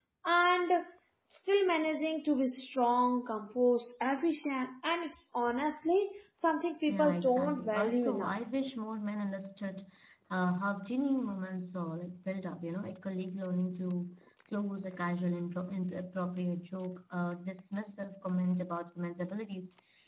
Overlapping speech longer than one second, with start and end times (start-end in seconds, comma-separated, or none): 6.9-8.3